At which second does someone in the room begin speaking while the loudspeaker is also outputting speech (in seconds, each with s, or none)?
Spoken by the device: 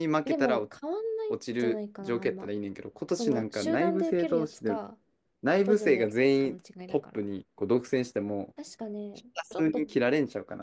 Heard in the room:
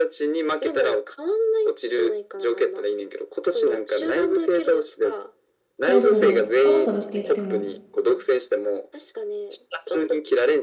5.8 s